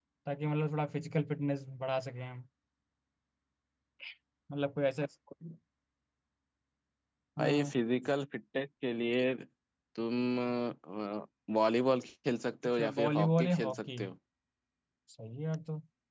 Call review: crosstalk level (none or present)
present